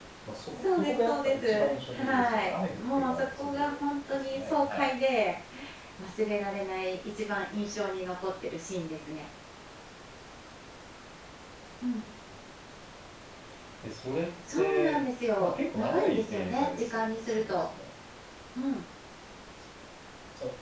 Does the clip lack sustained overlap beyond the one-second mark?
No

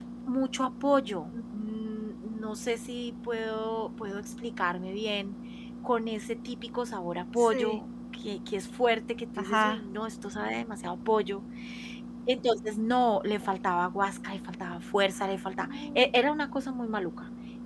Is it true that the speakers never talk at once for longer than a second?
Yes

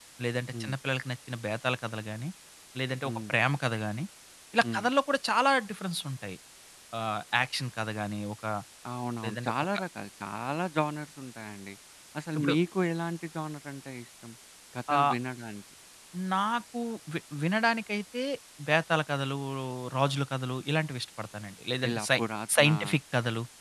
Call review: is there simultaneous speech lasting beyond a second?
No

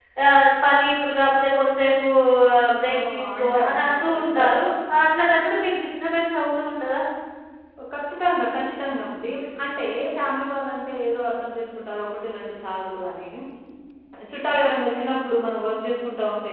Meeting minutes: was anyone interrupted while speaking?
Yes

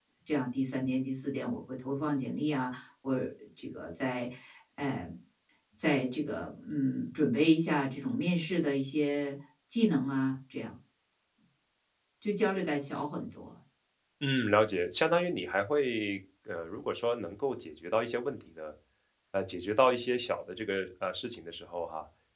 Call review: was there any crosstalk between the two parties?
No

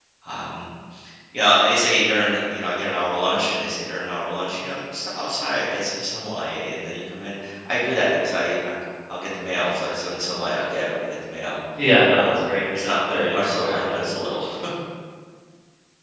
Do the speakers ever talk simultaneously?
Yes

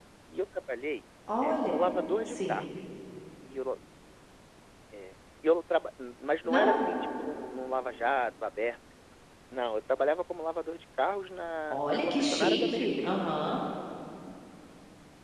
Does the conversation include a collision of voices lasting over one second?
Yes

